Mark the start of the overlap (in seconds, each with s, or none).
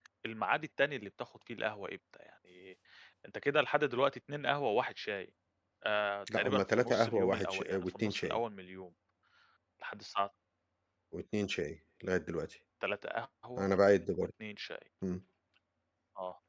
6.3 s